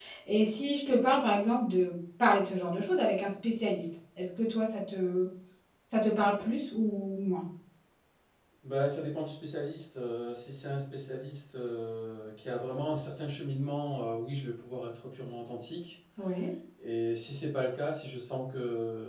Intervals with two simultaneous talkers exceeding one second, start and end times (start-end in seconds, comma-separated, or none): none